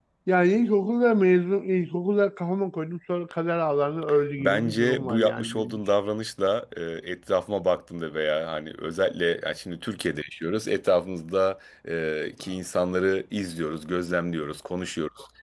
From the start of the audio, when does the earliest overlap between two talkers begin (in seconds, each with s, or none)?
4.4 s